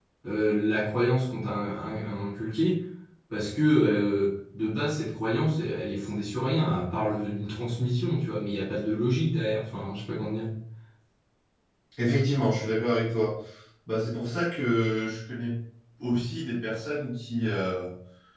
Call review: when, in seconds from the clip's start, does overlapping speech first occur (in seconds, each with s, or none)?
none